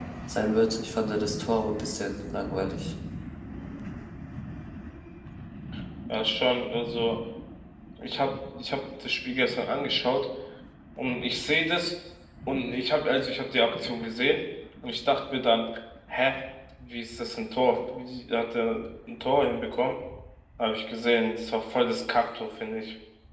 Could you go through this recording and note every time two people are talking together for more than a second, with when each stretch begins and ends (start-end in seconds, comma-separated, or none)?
none